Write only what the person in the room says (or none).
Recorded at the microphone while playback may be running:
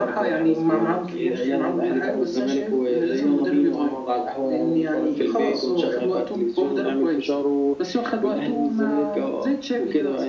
none